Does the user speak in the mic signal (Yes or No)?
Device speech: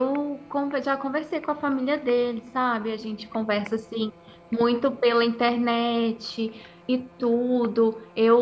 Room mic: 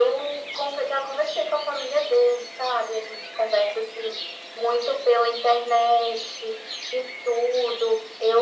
No